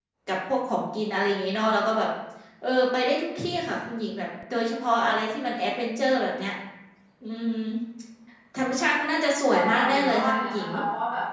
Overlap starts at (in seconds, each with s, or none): 9.5 s